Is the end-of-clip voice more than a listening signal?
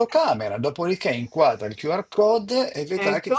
No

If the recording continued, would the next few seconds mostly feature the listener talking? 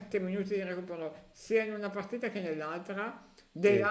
No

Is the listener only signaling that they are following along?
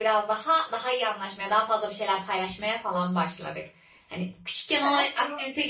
Yes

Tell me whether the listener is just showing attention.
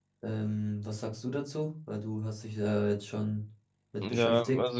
No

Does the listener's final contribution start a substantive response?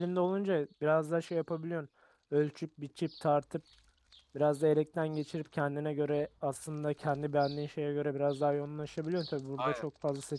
No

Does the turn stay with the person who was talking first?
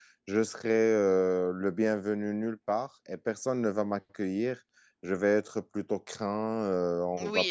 No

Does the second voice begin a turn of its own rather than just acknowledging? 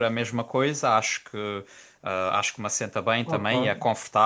No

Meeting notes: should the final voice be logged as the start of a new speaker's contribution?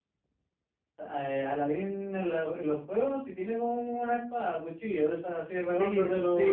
Yes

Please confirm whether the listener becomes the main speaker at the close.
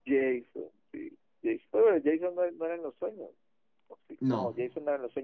No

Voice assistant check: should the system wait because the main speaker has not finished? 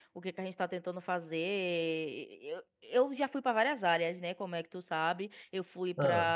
Yes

